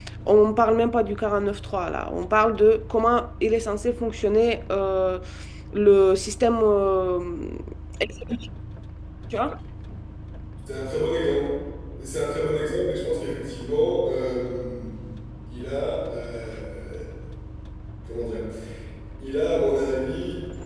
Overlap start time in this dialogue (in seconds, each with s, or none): none